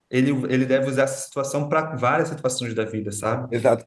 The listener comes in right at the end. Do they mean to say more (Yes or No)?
Yes